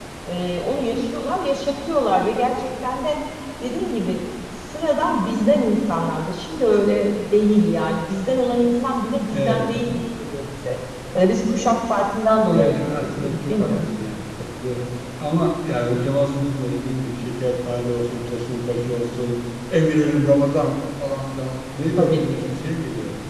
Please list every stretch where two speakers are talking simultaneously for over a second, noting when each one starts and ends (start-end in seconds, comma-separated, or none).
12.5-13.9